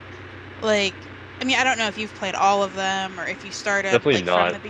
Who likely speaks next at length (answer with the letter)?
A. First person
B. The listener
B